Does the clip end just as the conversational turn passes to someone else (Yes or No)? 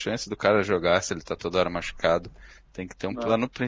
No